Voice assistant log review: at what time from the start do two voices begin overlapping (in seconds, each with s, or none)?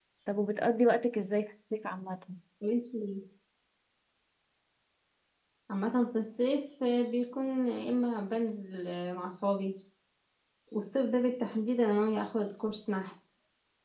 none